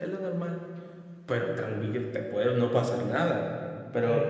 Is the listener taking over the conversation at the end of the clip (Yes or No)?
No